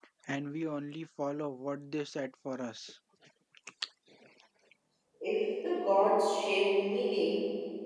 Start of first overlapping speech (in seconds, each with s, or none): none